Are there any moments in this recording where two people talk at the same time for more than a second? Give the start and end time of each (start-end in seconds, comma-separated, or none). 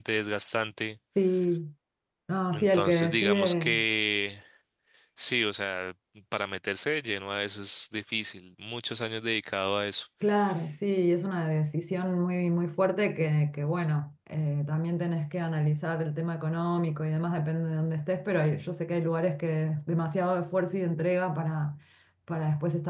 2.5-3.8